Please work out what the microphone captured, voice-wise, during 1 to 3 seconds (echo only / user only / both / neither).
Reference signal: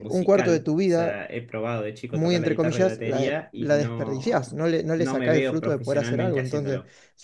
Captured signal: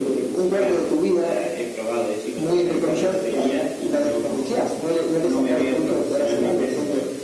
echo only